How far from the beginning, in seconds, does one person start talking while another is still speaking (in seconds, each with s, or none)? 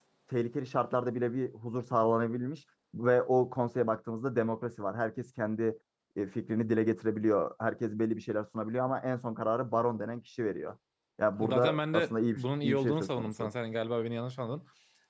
11.4 s